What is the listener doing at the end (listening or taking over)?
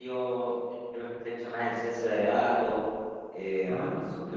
listening